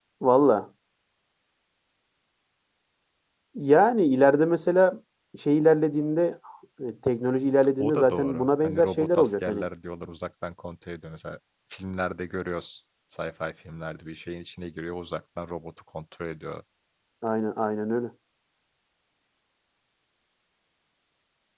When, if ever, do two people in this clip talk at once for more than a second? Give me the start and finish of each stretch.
7.8-9.7

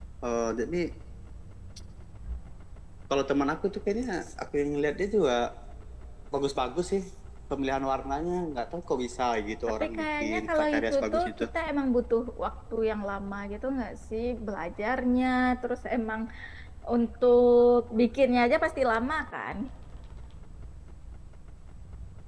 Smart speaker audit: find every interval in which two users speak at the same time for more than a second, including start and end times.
9.8-11.4

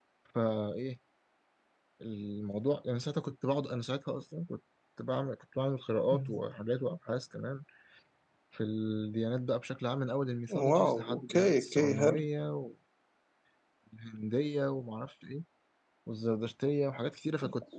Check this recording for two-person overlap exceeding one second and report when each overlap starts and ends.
10.7-12.2

